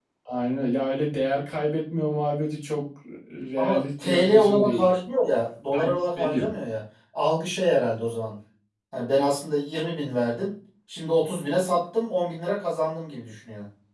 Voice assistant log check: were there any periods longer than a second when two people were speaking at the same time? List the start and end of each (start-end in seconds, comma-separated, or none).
3.6-4.8